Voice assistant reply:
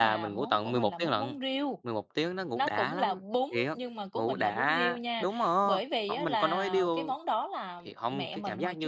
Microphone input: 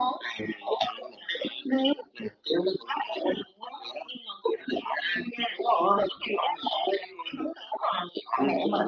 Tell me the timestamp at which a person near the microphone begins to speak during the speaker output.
none

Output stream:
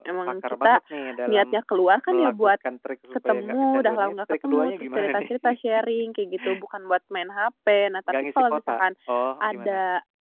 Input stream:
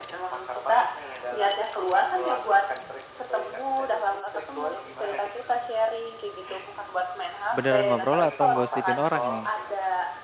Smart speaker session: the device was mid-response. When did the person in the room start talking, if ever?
8 s

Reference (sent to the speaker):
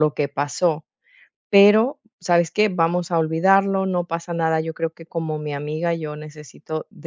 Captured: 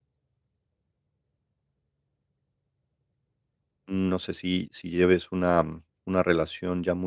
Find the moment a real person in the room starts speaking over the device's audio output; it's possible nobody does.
4 s

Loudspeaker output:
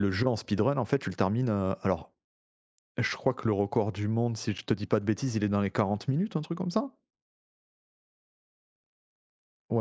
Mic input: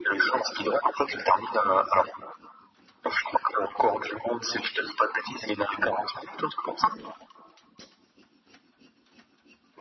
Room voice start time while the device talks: none

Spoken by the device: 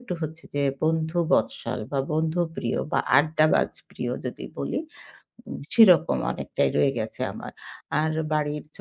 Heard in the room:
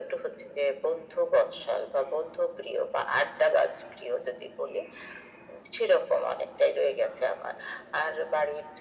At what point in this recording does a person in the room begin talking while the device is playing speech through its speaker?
none

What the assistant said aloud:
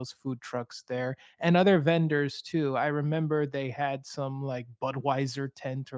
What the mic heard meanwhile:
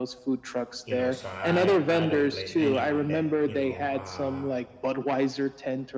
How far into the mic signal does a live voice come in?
1 s

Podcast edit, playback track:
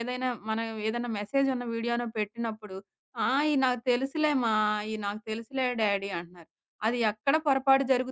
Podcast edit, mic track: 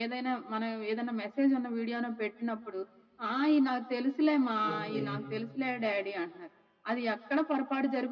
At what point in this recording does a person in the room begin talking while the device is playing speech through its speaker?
5 s

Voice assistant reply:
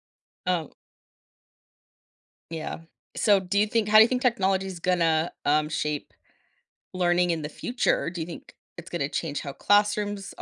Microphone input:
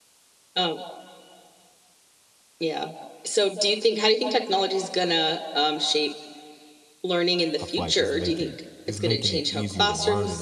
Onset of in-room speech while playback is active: 8 s

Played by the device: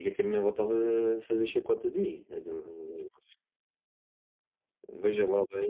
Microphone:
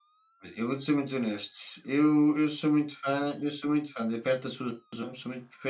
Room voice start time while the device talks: 0 s

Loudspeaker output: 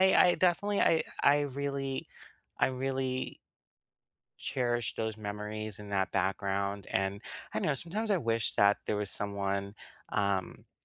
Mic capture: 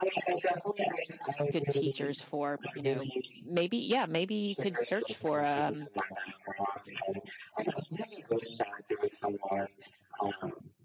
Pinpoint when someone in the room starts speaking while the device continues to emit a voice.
2 s

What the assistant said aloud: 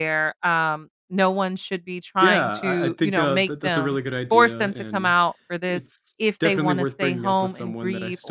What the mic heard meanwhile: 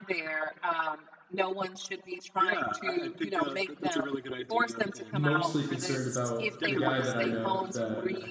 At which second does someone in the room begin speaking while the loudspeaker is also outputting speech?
5 s

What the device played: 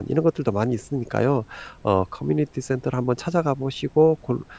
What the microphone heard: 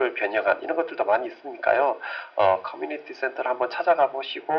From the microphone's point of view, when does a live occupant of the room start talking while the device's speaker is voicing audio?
none

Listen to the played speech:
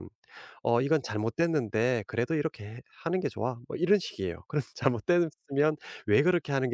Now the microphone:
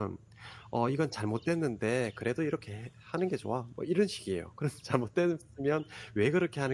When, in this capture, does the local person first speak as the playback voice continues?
none

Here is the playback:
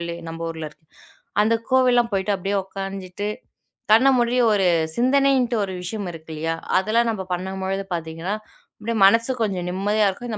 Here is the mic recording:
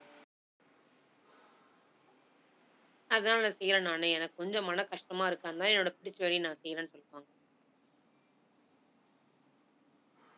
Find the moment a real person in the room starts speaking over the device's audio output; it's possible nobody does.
3 s

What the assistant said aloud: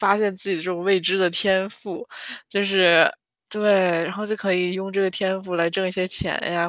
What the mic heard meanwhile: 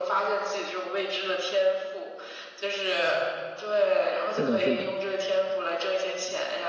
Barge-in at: 4 s

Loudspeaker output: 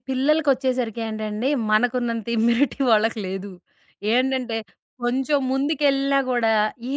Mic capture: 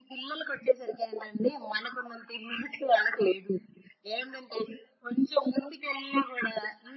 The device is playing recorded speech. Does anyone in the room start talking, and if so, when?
none

